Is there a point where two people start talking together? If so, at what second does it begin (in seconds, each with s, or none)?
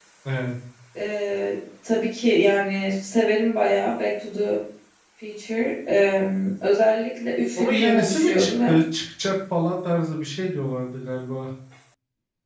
7.6 s